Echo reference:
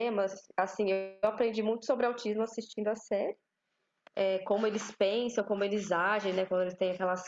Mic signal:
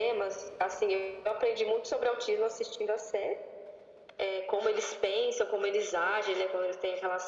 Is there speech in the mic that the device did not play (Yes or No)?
No